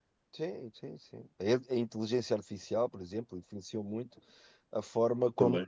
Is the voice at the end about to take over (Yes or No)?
No